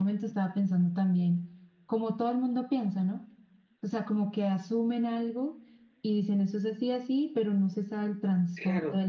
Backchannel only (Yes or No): No